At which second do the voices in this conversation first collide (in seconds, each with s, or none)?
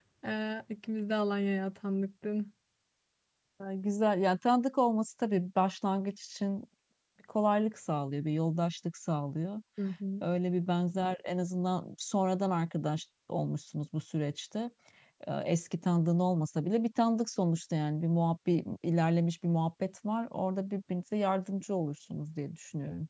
none